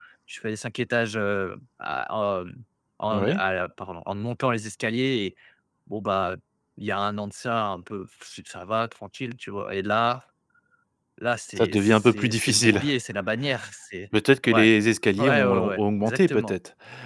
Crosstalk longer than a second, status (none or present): present